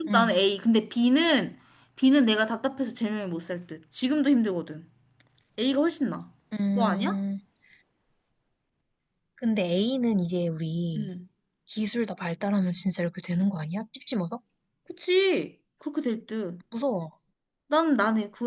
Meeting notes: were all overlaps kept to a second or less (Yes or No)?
Yes